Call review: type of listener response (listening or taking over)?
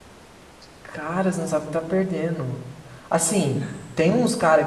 listening